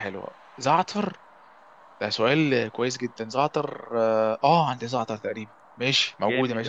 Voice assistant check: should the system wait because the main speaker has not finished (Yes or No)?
No